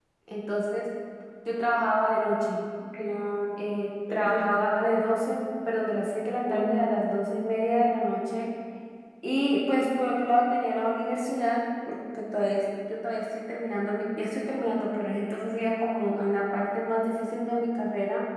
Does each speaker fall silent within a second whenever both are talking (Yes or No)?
Yes